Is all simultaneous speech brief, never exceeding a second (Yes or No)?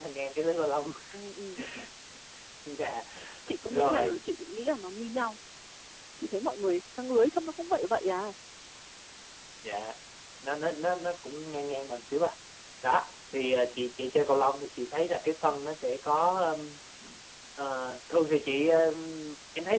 Yes